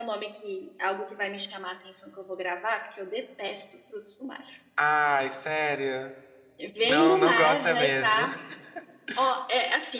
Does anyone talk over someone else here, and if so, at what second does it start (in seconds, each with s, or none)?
6.8 s